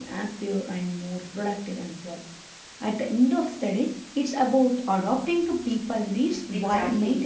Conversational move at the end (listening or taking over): taking over